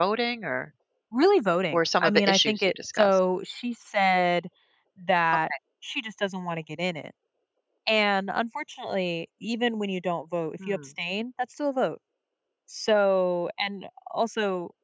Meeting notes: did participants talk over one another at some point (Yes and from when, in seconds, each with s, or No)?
Yes, from 1.7 s